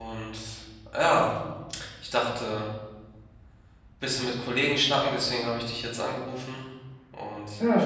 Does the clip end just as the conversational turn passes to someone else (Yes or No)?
Yes